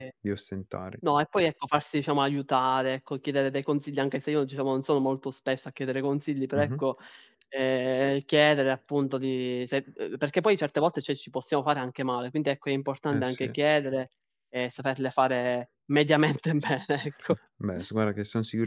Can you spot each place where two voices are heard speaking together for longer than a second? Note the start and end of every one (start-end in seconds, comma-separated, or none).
none